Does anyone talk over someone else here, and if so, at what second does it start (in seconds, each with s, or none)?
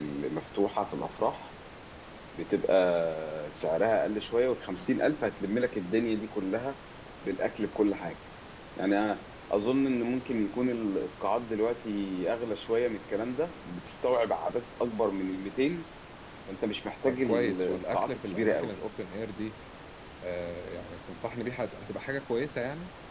17.1 s